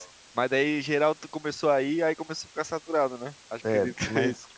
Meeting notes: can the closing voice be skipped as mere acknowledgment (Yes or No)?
No